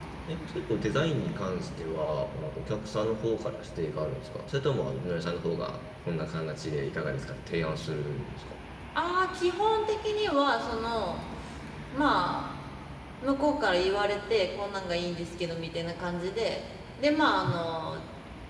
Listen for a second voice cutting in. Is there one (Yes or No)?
No